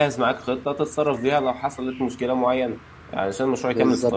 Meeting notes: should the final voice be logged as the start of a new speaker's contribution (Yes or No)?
No